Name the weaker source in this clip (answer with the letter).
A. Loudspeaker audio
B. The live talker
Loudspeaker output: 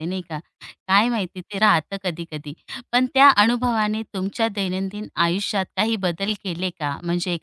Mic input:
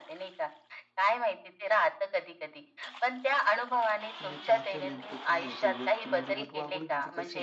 B